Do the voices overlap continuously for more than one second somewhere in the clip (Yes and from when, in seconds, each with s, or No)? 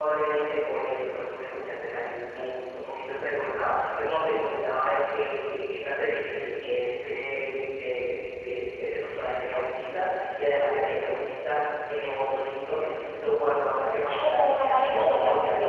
Yes, from 14.0 s